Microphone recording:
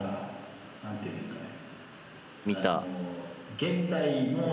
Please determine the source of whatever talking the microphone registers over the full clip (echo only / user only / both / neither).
both